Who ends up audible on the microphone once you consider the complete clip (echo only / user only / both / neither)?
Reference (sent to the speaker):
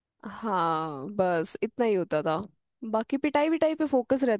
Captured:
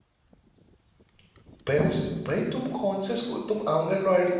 user only